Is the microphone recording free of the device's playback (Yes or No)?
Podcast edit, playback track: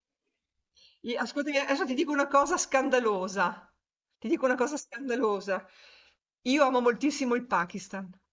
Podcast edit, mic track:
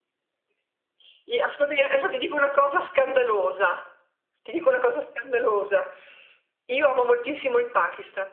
No